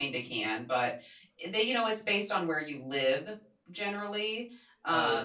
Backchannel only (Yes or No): No